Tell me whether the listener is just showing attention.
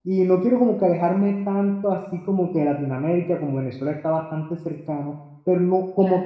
Yes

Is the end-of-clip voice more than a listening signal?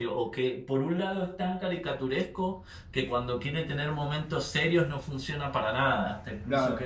Yes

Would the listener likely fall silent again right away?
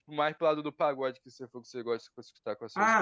No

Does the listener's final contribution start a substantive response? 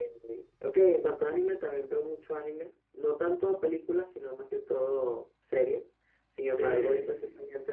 No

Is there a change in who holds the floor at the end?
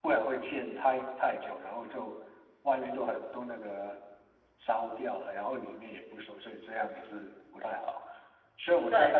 No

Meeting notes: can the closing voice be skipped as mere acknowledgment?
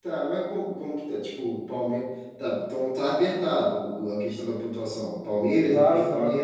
No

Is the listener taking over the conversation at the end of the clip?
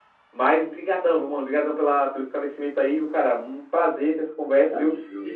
No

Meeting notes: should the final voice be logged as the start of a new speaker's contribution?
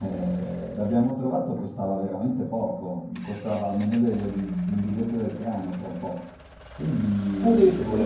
No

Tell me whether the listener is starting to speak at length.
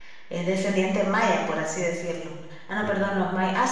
No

